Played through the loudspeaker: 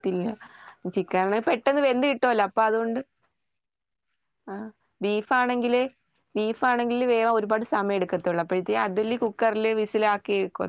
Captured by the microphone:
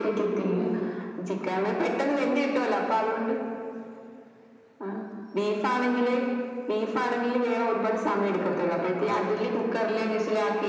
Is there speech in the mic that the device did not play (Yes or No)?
No